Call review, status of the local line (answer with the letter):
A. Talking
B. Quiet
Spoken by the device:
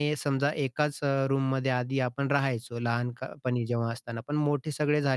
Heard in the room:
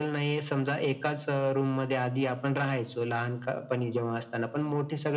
B